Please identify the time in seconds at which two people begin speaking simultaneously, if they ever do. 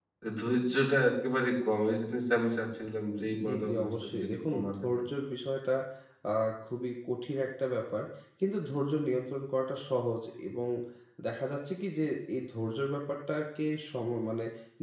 3.3 s

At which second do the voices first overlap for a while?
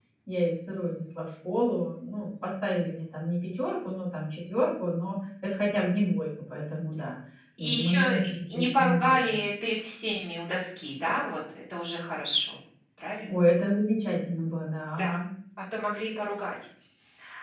7.6 s

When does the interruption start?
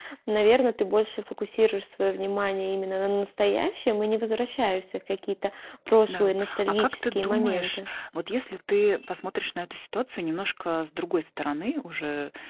6.1 s

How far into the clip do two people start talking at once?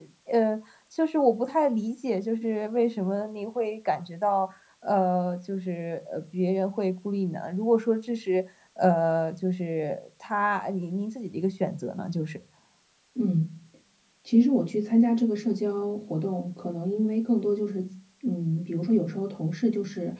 none

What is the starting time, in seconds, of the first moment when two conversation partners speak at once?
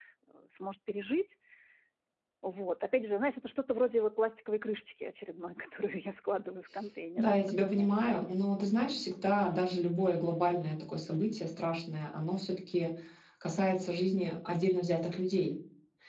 7.2 s

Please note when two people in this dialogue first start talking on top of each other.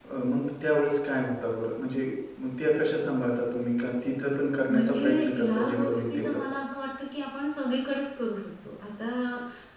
4.7 s

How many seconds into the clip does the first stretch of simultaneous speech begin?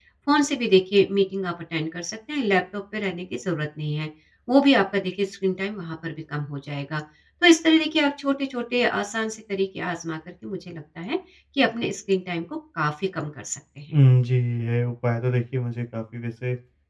none

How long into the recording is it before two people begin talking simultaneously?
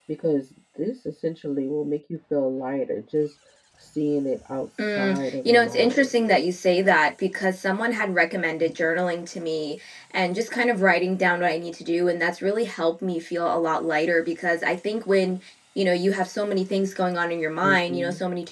4.8 s

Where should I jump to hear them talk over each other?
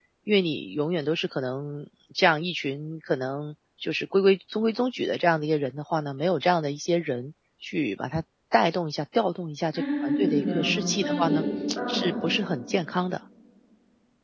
9.7 s

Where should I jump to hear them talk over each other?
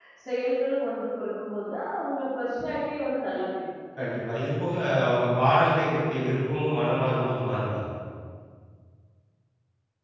none

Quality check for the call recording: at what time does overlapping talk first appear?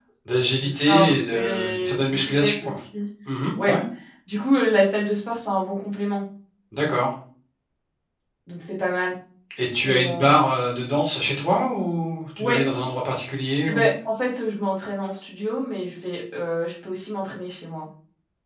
0.6 s

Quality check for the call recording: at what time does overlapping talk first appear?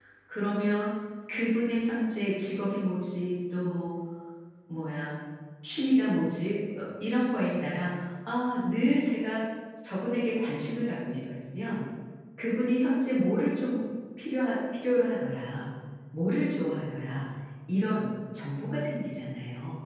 none

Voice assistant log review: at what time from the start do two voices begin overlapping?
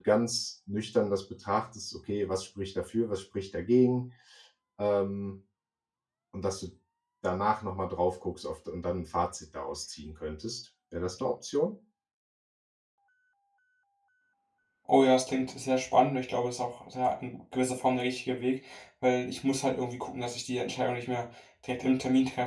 none

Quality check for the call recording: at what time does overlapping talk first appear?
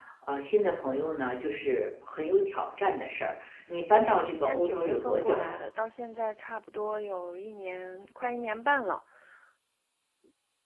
3.9 s

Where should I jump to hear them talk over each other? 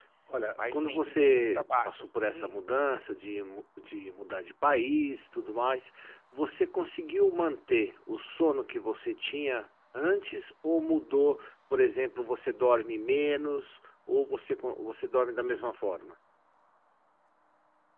0.7 s

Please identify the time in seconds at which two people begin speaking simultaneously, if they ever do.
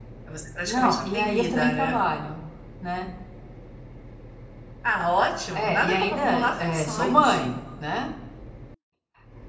0.6 s

